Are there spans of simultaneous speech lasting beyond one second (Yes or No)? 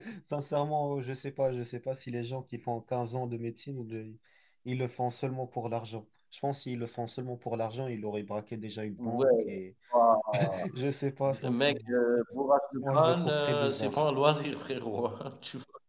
Yes